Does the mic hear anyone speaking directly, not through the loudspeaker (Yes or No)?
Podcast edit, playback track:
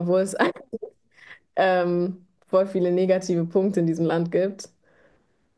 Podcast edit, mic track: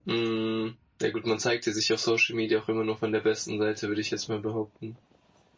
Yes